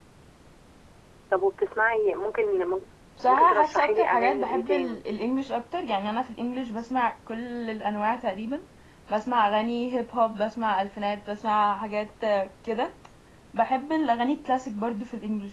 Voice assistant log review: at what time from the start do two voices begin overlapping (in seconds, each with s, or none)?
3.2 s